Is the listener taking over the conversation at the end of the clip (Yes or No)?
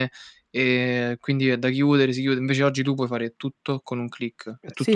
Yes